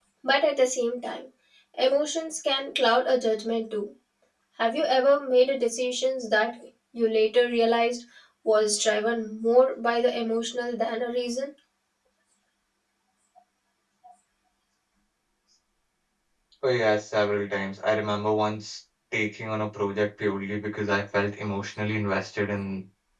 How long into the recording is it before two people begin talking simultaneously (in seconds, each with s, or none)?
none